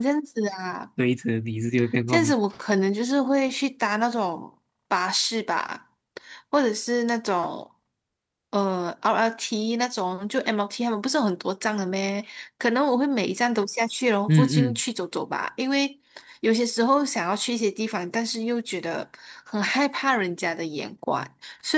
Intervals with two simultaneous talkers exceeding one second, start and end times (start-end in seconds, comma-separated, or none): none